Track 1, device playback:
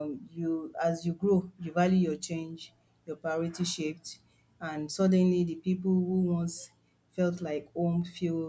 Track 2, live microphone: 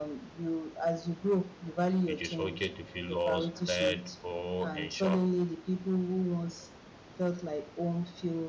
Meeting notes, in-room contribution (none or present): present